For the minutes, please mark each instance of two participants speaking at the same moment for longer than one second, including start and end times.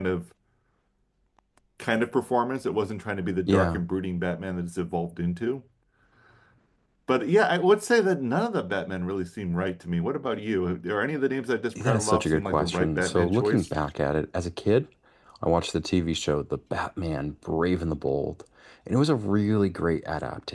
11.8-13.7

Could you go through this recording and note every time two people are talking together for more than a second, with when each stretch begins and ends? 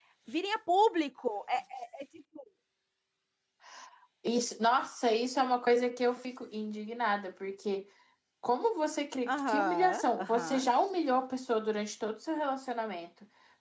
9.3-10.7

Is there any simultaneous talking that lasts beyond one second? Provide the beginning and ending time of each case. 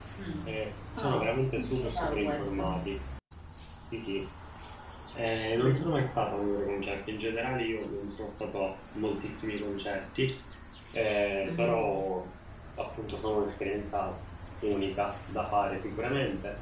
1.0-2.8

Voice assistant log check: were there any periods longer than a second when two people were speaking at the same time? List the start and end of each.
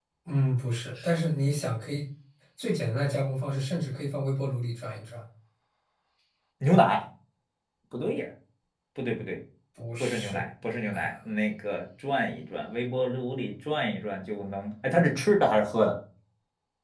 none

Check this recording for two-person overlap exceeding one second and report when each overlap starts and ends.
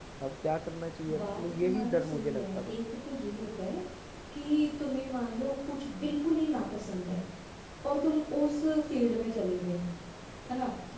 1.2-2.8

